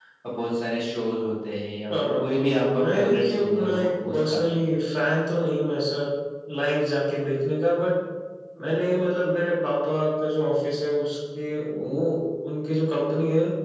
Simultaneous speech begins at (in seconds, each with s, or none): 1.9 s